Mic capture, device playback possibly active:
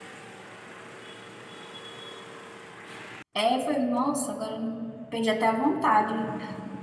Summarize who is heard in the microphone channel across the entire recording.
user only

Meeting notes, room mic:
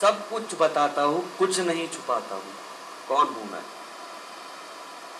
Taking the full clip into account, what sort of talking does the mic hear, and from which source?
echo only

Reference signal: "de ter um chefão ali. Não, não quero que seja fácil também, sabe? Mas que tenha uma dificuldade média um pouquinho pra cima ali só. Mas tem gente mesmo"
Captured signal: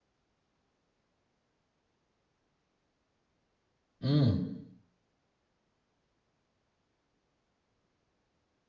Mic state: user only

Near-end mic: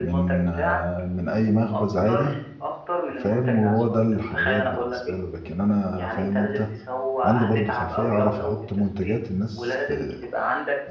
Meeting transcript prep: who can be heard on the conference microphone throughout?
both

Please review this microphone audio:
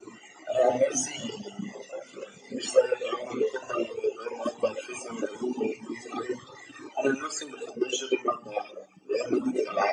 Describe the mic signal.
echo only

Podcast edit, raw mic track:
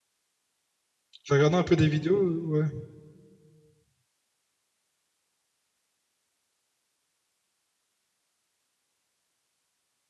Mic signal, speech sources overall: user only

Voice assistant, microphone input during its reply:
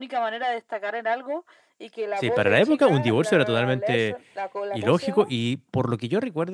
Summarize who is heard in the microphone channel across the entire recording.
both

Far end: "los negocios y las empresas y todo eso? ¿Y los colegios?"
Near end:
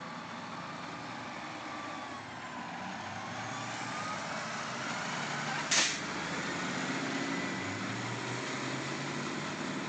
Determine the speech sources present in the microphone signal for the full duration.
neither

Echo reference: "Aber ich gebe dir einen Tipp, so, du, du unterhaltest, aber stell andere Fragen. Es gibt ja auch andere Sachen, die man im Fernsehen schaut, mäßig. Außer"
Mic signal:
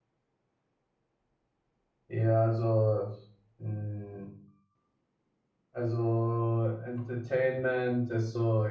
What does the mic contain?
user only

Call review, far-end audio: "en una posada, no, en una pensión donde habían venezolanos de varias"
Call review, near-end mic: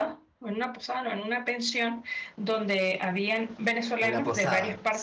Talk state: both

